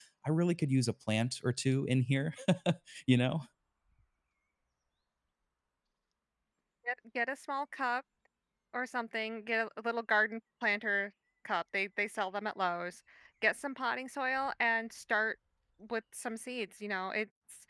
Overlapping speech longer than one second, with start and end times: none

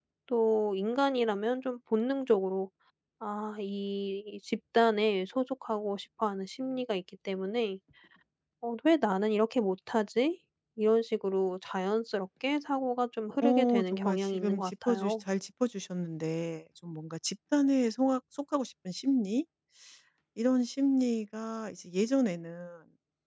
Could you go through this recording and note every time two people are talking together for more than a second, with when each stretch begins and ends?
13.4-15.2

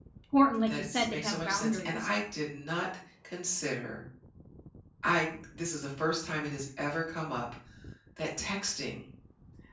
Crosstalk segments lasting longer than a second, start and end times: 0.7-2.1

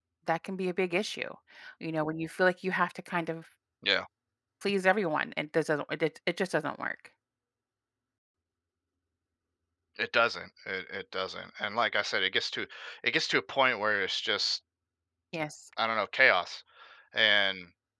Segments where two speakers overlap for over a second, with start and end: none

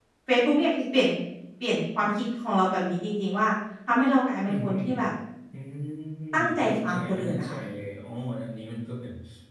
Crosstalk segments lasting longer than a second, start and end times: 6.3-7.6

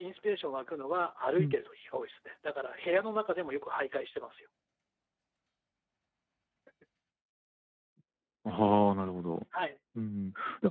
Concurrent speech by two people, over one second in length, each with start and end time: none

